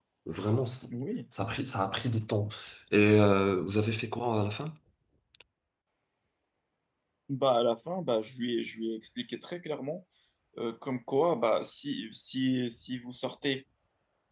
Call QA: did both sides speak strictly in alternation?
Yes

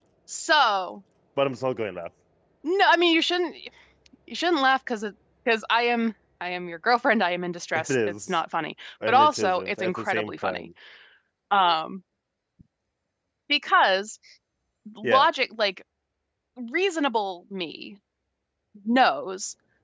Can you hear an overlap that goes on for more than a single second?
Yes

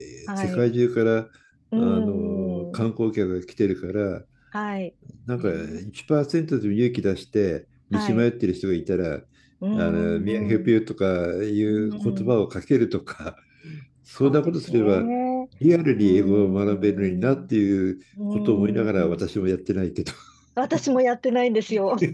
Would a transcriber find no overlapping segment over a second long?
No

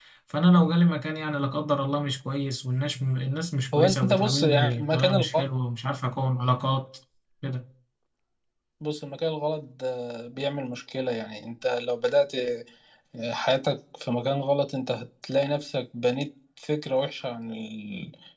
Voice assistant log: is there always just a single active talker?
No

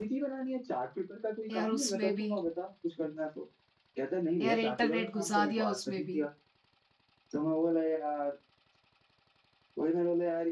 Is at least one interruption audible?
Yes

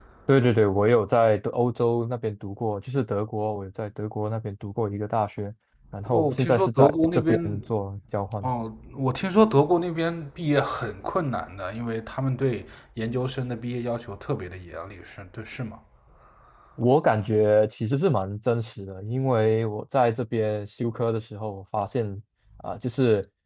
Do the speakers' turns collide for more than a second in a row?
Yes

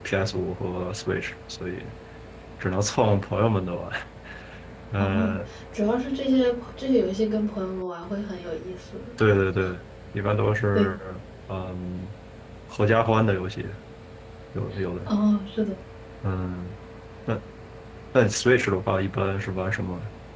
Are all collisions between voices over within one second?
Yes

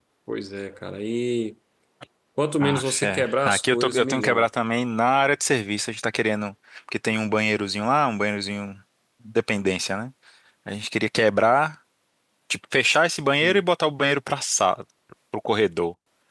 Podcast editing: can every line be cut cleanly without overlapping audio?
No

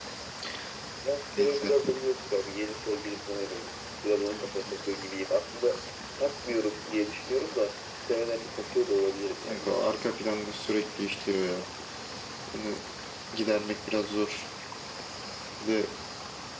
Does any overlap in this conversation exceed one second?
No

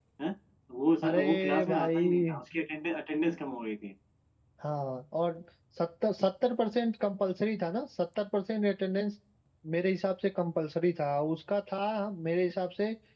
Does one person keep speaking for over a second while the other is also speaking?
Yes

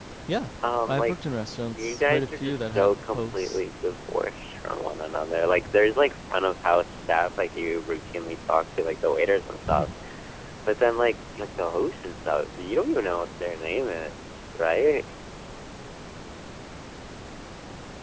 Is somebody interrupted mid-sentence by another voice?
Yes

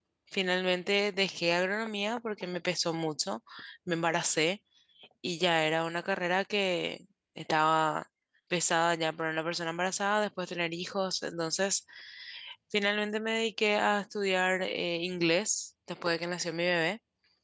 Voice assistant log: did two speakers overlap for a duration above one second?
No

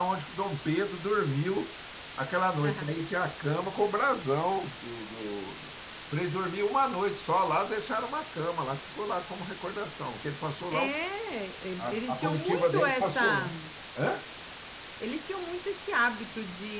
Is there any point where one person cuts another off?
Yes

